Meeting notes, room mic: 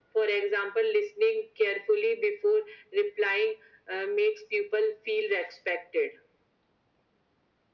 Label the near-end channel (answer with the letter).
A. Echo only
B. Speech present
A